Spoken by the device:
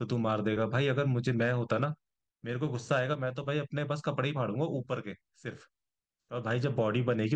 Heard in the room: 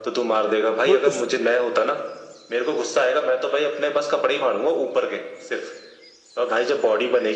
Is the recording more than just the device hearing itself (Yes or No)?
Yes